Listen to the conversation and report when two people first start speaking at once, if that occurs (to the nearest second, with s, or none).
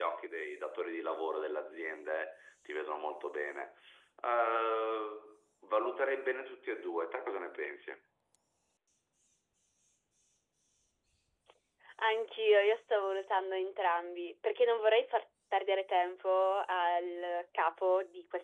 none